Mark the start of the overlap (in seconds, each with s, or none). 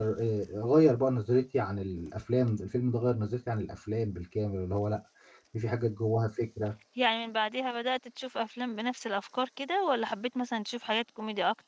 none